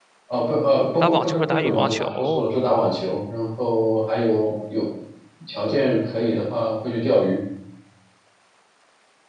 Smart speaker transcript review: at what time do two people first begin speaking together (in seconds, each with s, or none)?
1.0 s